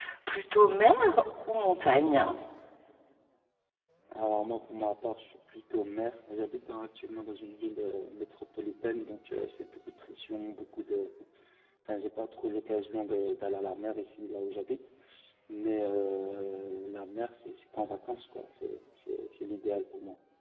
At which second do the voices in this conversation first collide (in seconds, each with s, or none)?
none